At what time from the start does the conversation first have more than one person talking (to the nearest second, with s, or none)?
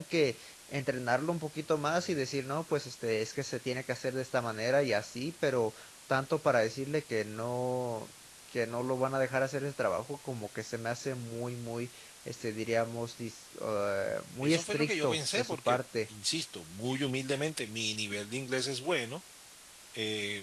14 s